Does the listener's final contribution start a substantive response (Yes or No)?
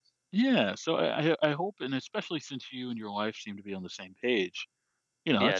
Yes